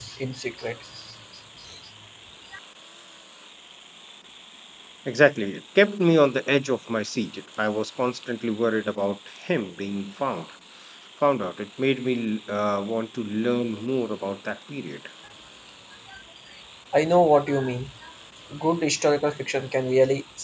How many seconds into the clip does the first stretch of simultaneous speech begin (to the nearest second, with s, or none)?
none